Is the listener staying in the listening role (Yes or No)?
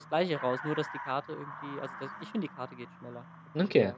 No